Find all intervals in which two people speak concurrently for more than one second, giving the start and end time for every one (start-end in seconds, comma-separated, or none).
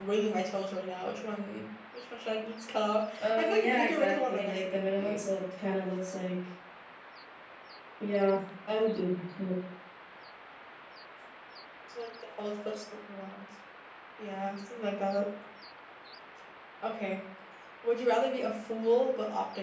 3.2-5.2